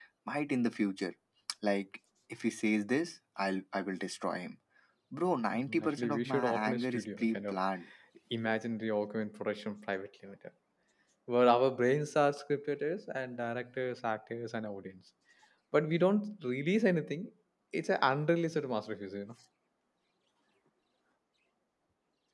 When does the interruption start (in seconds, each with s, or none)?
5.5 s